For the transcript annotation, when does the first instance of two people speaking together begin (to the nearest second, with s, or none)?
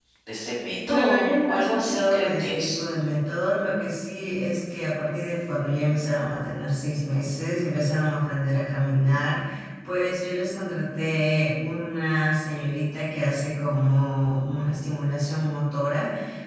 1 s